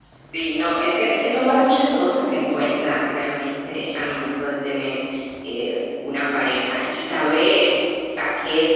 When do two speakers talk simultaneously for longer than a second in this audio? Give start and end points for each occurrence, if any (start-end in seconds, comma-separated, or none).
1.2-2.7